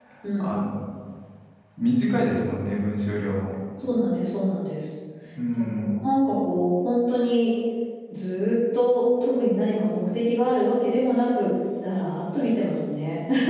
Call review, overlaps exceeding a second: none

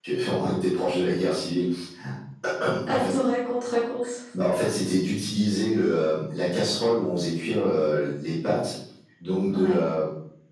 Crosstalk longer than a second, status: none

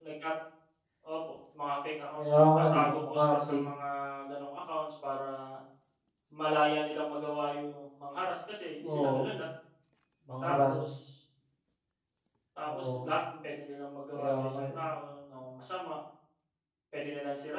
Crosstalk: present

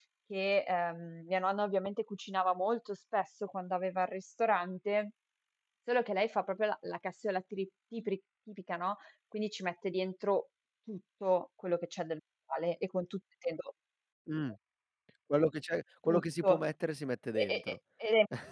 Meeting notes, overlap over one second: none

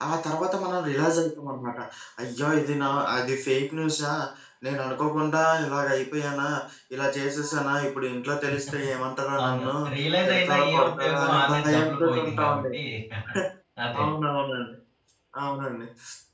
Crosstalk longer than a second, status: present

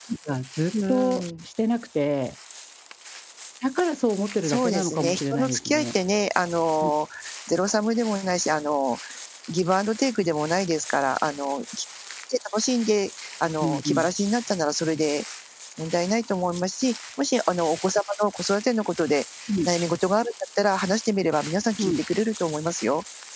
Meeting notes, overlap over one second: present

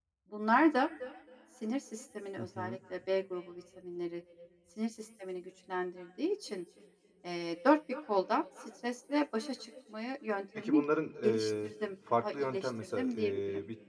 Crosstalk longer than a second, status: present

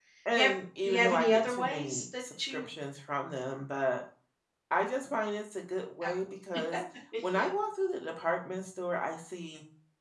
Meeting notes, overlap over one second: present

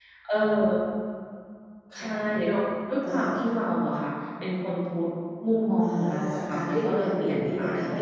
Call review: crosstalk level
present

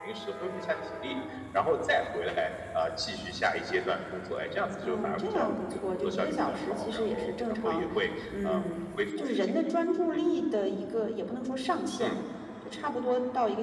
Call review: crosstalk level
present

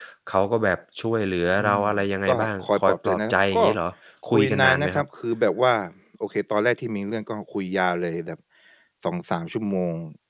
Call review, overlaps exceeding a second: present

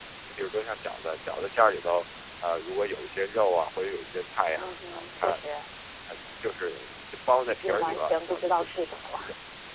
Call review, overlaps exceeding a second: present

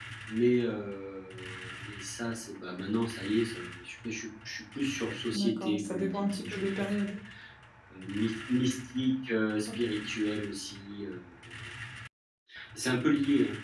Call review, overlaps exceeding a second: present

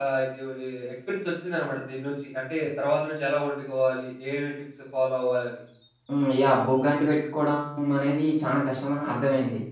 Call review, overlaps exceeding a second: none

